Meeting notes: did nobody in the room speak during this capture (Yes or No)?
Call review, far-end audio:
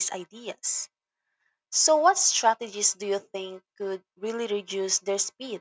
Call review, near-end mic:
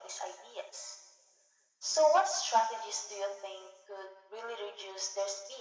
Yes